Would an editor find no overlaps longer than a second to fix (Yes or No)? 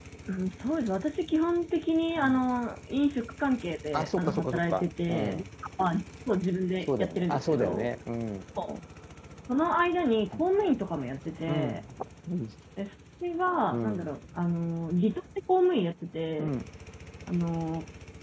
No